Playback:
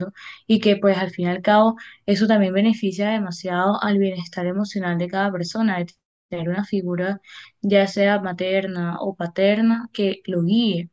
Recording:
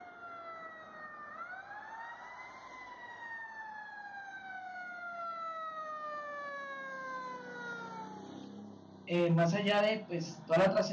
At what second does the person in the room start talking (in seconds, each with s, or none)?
9.1 s